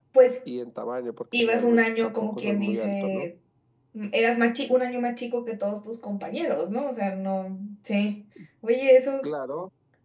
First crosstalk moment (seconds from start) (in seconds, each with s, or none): 1.3 s